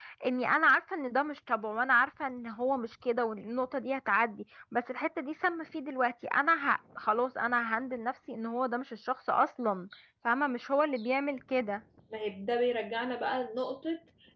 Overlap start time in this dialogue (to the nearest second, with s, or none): none